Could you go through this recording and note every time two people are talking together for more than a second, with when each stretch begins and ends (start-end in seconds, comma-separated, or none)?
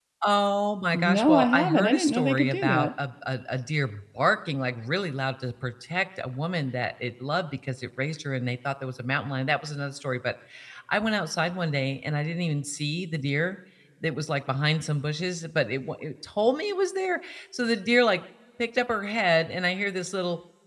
1.2-2.9